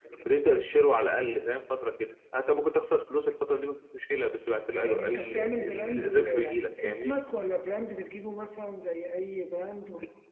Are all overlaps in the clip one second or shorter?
No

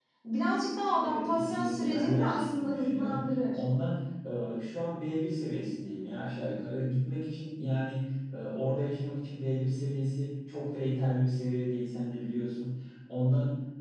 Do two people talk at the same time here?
Yes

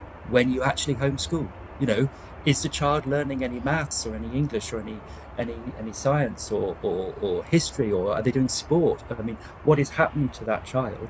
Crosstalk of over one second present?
No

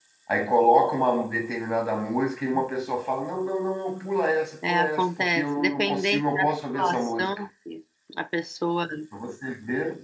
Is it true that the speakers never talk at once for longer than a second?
No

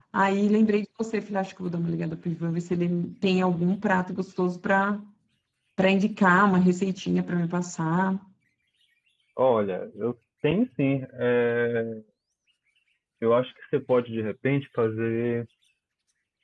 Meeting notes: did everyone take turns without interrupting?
Yes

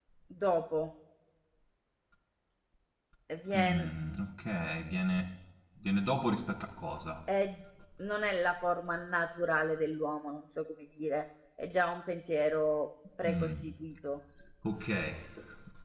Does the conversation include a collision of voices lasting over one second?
No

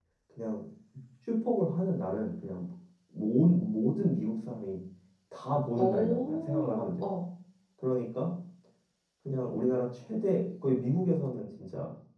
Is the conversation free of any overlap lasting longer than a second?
No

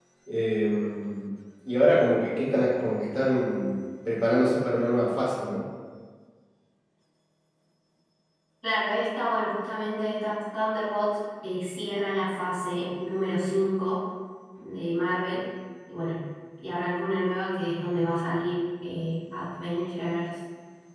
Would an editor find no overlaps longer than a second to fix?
Yes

